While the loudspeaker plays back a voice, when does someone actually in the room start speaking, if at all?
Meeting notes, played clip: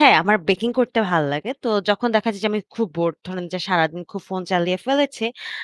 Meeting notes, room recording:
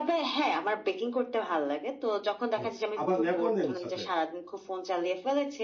2.6 s

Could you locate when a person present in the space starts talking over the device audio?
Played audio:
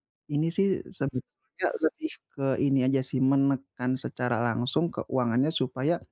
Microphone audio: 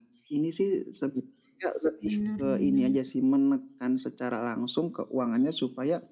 2.0 s

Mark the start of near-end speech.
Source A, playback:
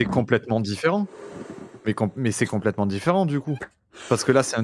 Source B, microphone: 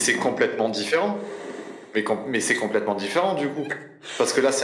none

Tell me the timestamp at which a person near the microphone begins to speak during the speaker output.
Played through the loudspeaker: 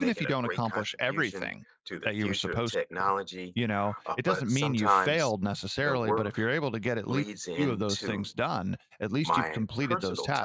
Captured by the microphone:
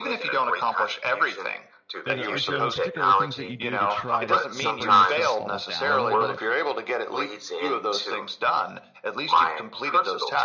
2.1 s

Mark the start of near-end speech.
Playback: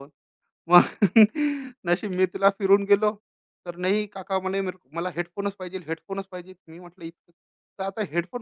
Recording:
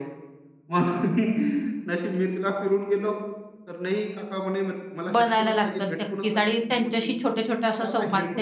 5.1 s

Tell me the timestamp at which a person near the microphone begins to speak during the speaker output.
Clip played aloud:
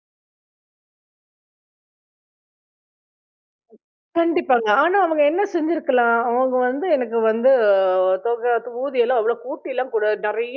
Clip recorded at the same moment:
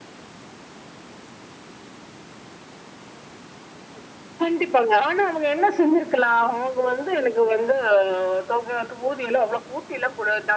none

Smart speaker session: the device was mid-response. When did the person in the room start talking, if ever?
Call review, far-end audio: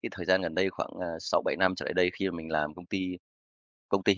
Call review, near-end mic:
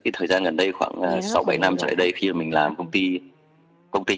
1.0 s

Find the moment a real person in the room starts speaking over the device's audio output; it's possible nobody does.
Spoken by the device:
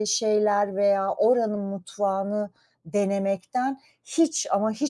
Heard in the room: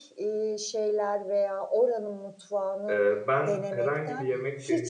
2.9 s

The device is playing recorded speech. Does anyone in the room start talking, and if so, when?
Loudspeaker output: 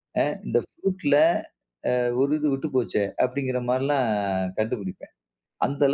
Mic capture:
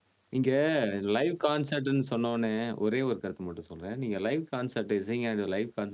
0.3 s

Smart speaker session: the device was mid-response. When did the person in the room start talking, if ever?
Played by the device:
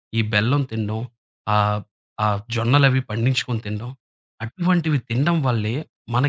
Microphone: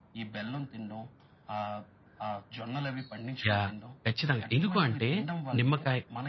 3.5 s

